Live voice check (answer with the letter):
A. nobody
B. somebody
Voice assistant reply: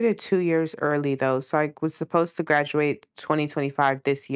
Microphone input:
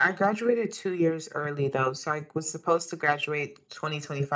A